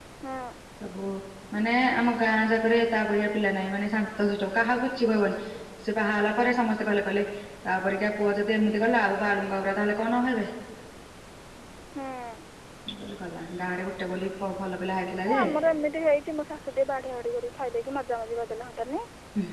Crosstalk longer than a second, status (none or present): none